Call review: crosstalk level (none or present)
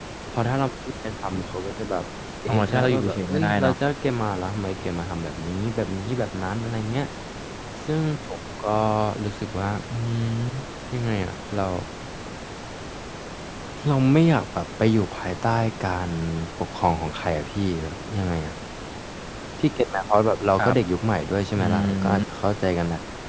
present